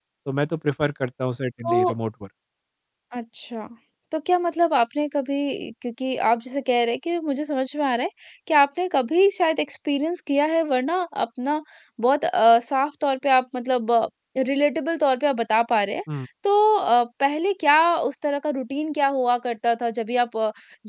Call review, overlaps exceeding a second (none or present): none